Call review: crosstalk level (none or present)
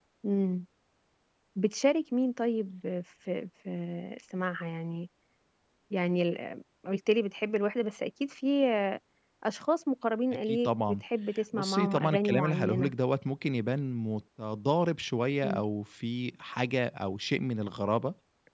present